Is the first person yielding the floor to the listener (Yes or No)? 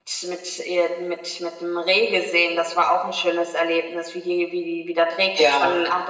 No